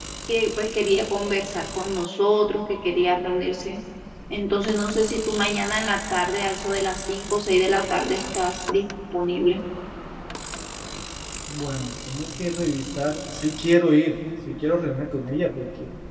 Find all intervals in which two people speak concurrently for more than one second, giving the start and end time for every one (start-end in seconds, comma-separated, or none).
none